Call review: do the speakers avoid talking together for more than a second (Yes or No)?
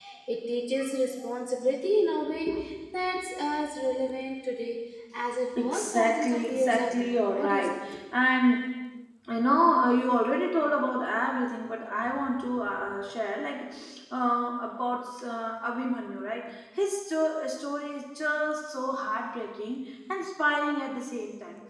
No